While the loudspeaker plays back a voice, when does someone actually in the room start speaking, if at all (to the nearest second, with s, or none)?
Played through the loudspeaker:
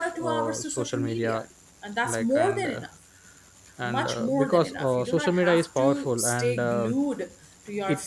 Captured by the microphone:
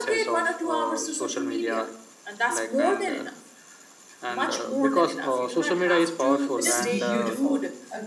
7 s